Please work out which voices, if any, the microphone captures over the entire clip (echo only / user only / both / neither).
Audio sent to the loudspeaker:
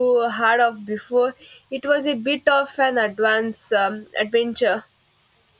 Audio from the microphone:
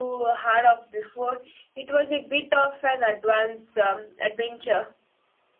echo only